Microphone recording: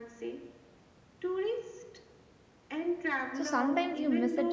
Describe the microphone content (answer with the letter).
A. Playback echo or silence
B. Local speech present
B